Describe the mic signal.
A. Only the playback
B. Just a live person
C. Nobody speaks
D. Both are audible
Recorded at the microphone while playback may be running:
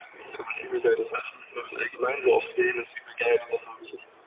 A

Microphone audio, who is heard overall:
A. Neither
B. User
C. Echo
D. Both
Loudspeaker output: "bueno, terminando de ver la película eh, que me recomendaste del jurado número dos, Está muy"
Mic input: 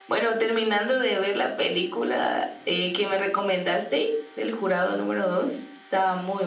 C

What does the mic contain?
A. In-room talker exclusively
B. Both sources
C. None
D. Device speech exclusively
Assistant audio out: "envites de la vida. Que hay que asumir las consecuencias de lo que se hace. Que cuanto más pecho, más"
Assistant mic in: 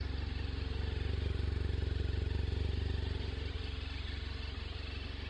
C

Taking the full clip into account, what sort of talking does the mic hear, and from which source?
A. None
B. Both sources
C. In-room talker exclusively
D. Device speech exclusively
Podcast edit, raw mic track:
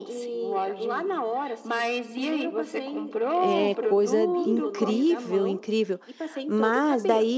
B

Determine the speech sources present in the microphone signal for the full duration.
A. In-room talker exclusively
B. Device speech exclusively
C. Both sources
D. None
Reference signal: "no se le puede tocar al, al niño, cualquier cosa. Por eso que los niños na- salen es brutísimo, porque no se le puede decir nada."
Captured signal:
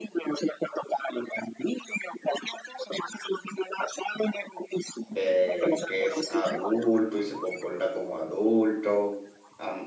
C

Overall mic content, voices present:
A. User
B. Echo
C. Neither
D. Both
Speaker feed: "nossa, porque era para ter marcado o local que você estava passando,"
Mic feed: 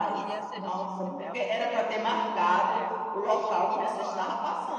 D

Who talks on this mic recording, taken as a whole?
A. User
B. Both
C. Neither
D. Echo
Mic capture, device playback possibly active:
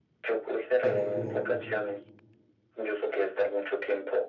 B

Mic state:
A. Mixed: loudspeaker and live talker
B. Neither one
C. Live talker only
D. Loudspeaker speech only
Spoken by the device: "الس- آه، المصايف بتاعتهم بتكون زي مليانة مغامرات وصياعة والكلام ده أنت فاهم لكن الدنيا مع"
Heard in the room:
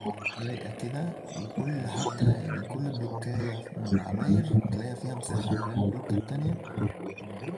A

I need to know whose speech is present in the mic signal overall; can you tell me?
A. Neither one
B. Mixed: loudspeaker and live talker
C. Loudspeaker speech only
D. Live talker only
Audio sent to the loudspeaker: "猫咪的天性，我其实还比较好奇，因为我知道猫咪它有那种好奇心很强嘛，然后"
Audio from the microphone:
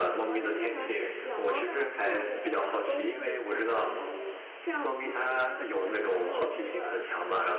B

